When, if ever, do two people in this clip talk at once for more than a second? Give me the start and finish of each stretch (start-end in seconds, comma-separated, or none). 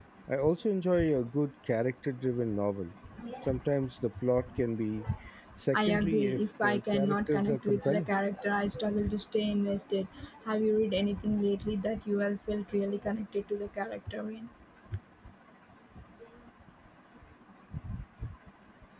5.7-8.1